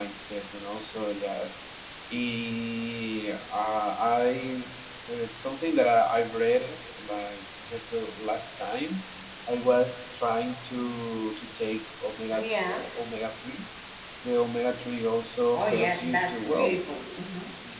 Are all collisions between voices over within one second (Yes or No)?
No